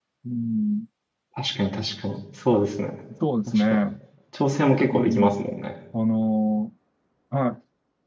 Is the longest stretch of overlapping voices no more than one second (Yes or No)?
Yes